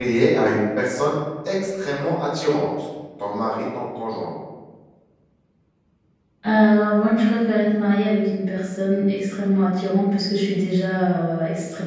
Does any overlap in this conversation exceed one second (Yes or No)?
No